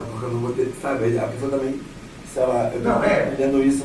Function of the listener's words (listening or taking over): listening